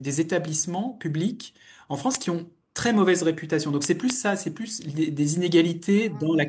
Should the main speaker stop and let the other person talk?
No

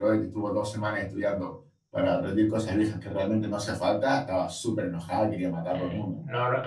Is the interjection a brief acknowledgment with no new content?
No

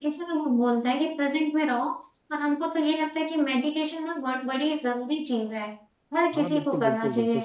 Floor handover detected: Yes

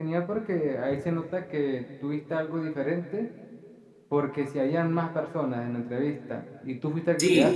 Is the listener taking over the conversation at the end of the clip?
No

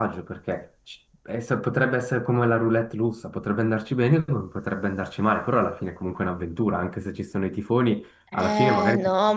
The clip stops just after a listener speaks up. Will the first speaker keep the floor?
No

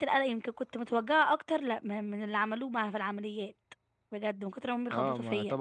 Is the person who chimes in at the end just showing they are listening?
No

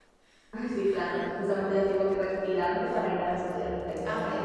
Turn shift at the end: Yes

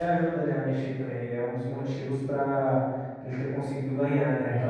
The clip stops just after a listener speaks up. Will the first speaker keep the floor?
No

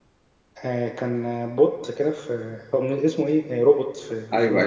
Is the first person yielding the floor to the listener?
Yes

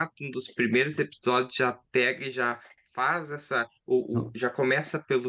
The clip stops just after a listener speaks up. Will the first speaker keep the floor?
Yes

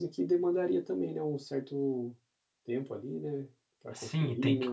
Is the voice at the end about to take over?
Yes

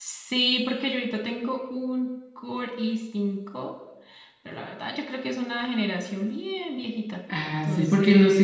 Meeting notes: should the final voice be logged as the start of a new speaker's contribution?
Yes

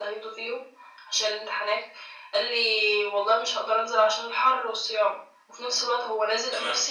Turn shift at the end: No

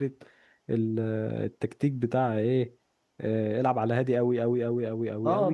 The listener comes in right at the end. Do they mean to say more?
Yes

